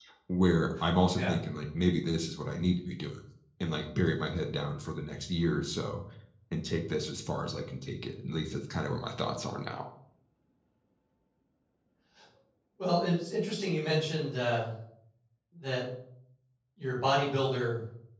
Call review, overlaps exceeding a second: none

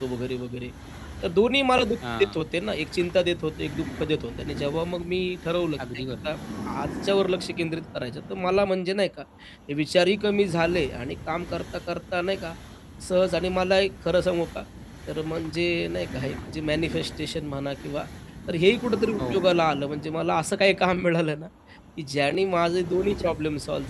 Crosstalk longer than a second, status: none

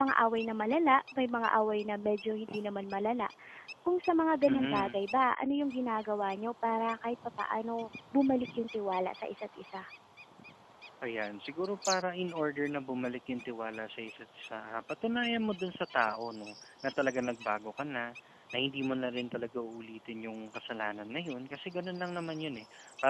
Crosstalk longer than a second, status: none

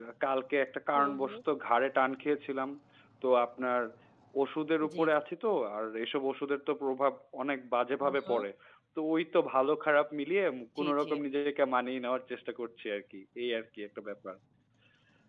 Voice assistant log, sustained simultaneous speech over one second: none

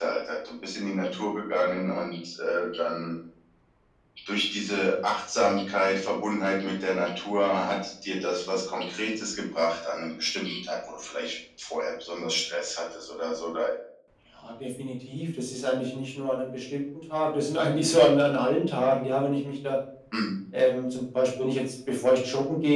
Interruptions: none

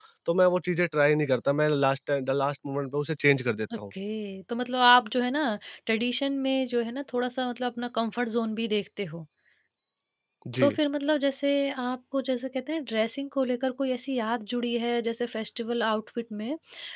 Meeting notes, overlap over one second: none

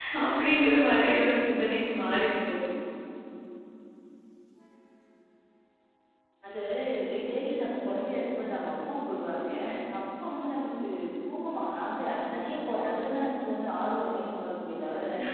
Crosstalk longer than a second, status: none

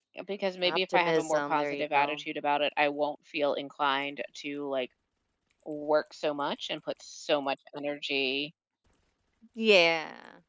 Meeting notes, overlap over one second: present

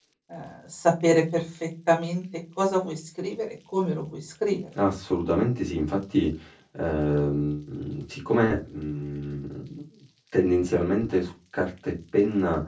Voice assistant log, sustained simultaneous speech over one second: none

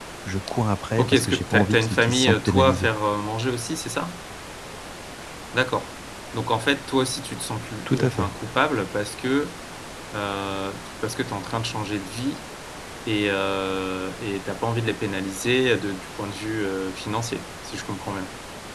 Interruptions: present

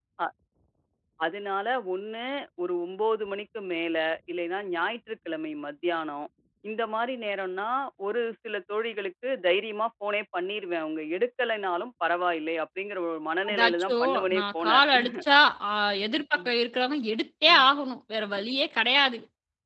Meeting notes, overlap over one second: present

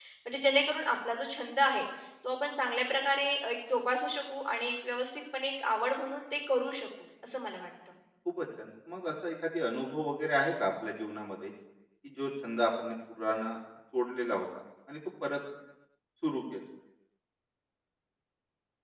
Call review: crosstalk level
none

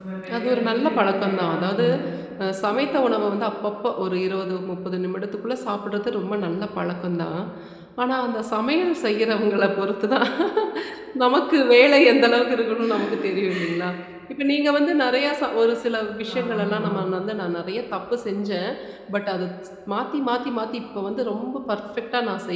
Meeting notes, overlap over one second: present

